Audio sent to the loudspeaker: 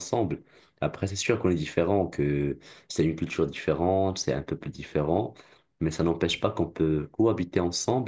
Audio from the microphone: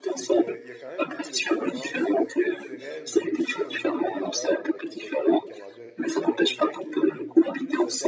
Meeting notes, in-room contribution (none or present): present